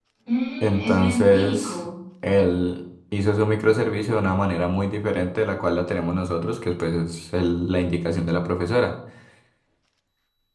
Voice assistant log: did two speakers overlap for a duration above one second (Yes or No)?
Yes